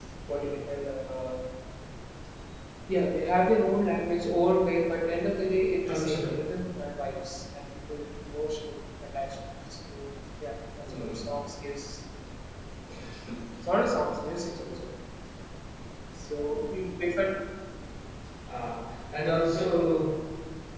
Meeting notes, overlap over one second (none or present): none